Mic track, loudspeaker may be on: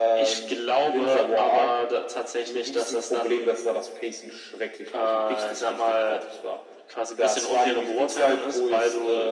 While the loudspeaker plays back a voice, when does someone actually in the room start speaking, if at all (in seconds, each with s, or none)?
none